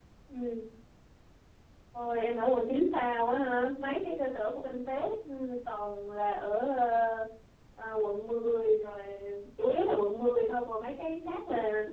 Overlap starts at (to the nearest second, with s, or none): none